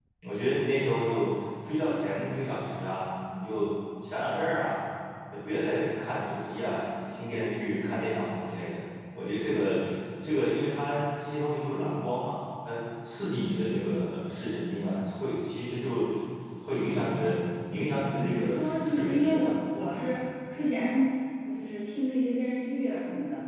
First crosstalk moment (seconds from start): 18.2 s

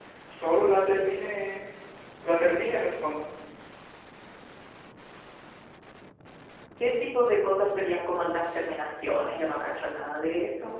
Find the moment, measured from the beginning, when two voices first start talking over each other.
none

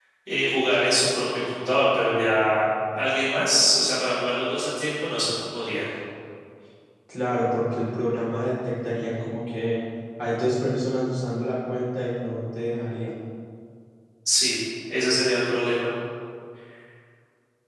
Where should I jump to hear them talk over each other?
none

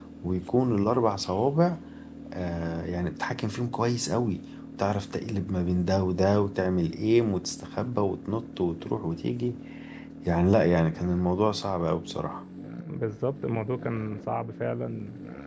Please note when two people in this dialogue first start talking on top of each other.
none

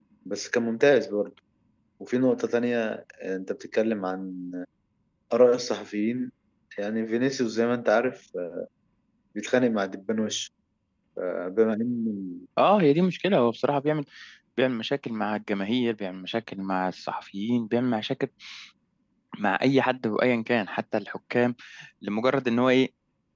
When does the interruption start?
none

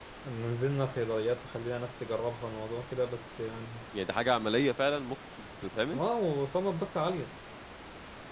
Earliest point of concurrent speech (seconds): none

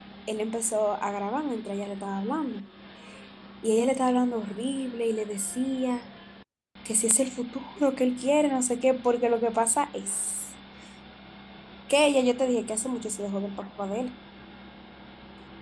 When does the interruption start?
none

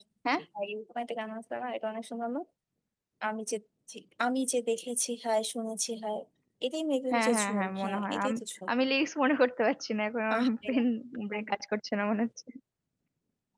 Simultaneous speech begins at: 7.1 s

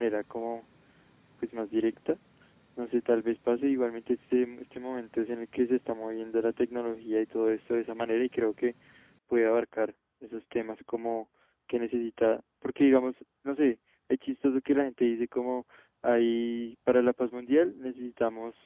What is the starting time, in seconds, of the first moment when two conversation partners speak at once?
none

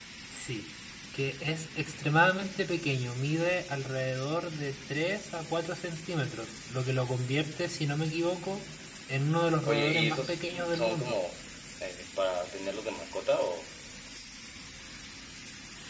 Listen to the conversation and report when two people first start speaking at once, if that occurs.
9.6 s

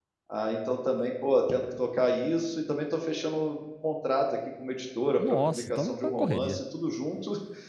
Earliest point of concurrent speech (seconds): 5.2 s

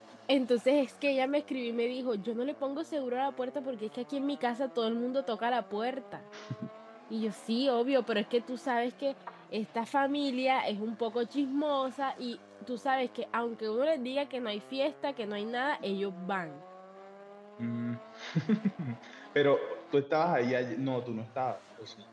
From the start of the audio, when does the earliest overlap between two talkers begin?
none

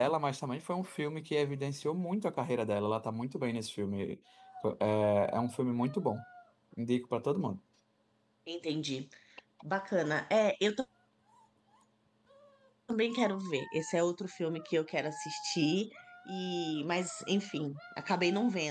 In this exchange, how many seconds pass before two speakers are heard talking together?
none

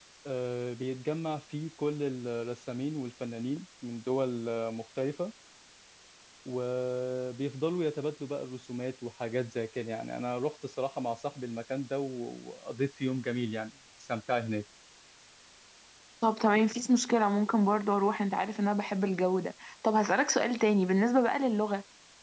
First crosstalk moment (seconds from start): none

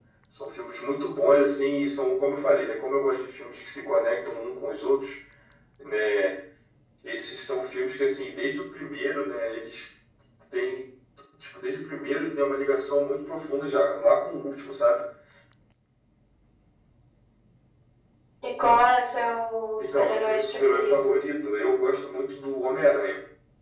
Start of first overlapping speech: 19.8 s

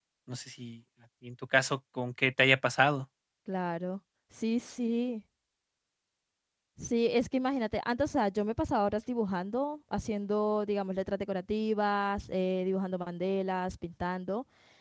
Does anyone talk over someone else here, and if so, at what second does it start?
none

